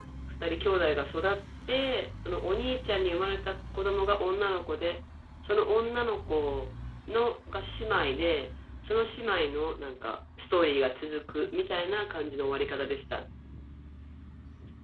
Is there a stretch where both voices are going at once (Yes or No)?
No